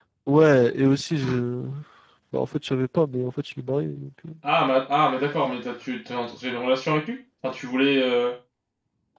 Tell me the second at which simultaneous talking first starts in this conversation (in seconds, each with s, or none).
none